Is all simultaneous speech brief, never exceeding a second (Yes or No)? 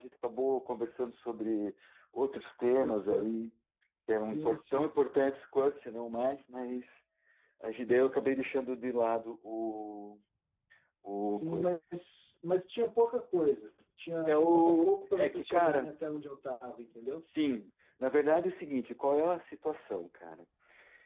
No